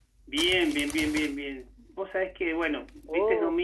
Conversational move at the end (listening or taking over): listening